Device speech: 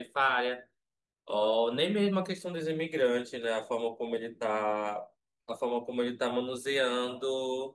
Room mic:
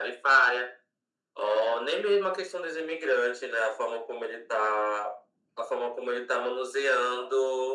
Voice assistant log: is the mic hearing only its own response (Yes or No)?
Yes